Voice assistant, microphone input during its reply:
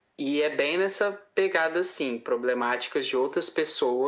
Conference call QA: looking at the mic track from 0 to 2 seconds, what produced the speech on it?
echo only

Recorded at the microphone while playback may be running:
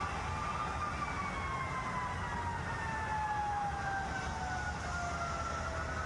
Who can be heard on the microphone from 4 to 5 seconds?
neither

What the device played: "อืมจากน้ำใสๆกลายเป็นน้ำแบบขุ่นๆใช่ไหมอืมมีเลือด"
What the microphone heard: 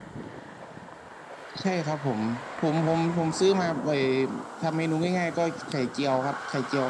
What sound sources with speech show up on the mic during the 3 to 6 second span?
user only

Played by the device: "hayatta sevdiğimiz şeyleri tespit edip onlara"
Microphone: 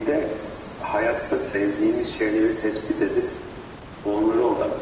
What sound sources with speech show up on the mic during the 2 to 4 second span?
echo only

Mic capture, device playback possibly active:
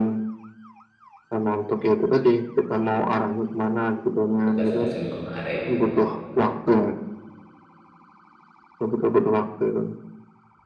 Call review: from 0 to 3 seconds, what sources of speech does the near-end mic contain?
echo only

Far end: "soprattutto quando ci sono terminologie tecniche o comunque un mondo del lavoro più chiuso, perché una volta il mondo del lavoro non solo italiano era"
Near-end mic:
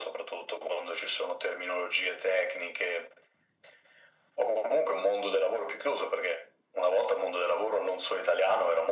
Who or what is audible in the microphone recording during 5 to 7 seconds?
echo only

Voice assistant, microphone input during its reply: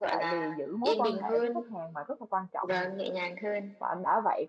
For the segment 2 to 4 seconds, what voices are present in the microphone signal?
both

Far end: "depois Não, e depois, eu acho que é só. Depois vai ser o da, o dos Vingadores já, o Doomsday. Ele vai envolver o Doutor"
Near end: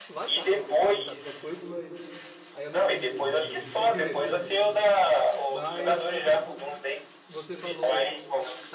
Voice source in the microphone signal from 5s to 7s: both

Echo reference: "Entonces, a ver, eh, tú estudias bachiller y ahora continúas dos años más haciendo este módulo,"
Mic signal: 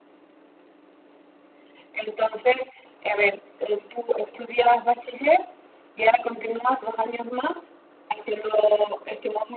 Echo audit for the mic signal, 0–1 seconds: neither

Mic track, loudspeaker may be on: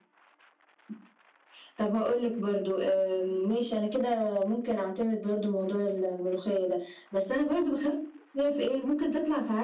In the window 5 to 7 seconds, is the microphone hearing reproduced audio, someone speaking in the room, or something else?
echo only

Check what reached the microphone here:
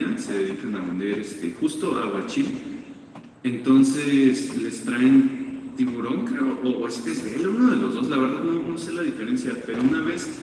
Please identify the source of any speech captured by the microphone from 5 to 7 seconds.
echo only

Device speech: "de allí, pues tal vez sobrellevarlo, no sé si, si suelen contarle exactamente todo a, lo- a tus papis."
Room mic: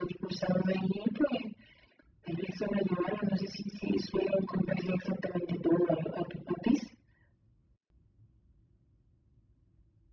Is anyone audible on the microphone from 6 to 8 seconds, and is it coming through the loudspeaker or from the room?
echo only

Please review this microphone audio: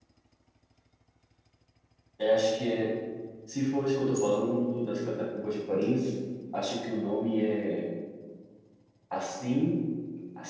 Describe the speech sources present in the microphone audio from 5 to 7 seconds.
user only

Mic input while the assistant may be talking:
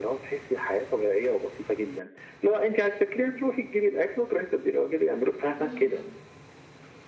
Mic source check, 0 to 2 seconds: echo only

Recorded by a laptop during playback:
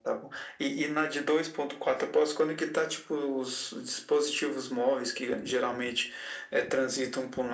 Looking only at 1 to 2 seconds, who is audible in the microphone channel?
echo only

